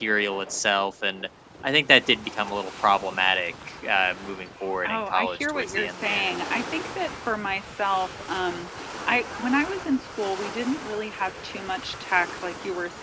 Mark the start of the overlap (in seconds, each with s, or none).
4.8 s